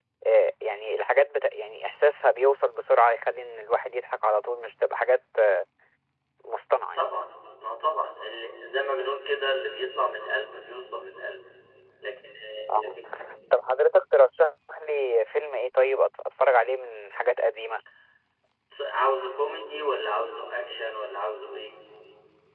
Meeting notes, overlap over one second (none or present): none